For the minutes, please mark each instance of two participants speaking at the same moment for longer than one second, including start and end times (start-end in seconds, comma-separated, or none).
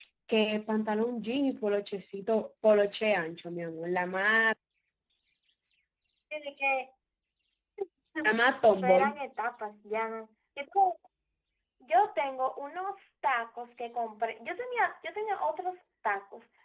none